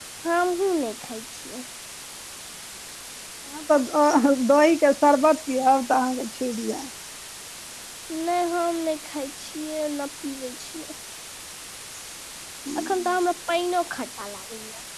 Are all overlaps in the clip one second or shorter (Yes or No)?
Yes